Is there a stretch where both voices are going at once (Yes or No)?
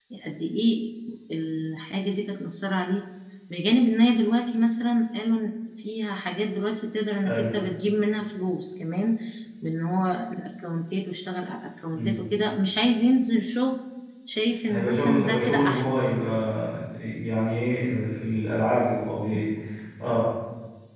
Yes